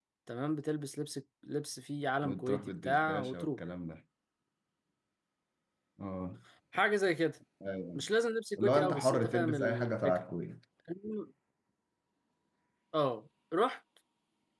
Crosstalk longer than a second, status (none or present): present